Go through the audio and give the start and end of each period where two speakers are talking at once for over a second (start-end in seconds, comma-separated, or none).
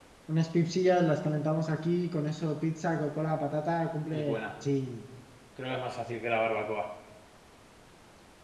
none